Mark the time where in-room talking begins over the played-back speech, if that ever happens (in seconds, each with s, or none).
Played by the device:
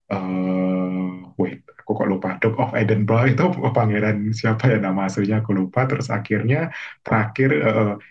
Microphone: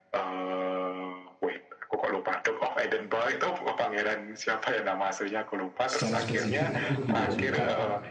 5.9 s